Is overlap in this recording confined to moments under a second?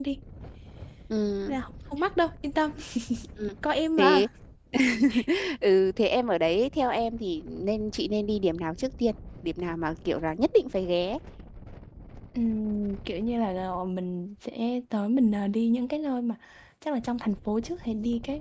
Yes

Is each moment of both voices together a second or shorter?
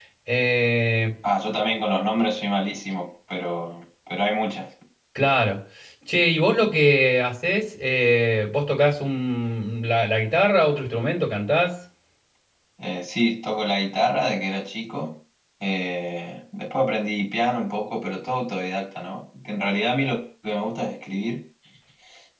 Yes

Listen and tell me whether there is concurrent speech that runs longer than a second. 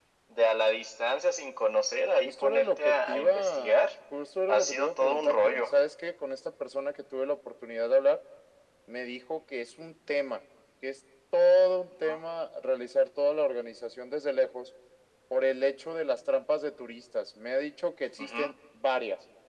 Yes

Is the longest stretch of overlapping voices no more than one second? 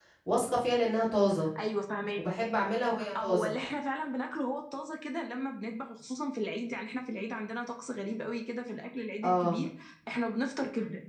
Yes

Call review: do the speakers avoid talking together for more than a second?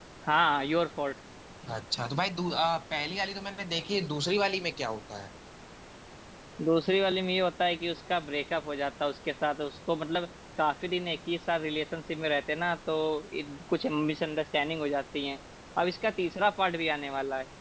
Yes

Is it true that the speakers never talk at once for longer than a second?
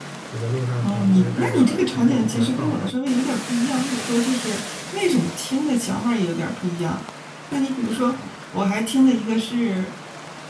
No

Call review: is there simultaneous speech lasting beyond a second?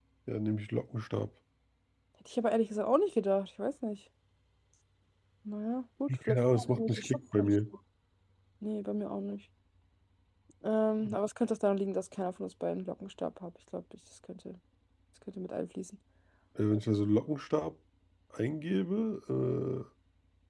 Yes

